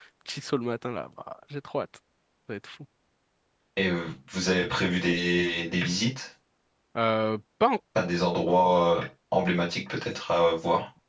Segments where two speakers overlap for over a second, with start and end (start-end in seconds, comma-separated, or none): none